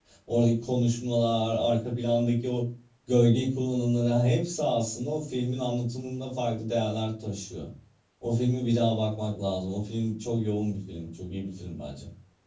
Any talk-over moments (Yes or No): No